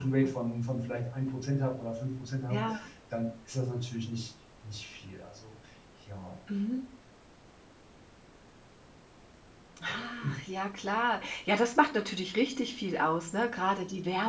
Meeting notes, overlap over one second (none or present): none